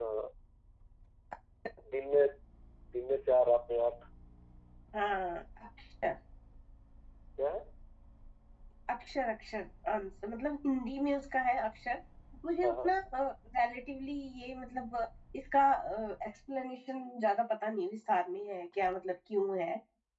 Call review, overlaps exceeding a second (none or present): none